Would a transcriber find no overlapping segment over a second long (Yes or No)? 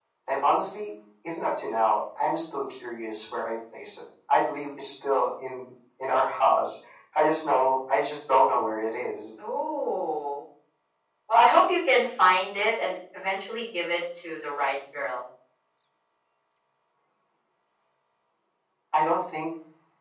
Yes